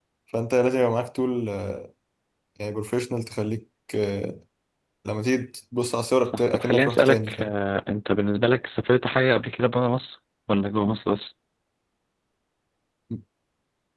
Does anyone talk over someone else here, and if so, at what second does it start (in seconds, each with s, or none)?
6.2 s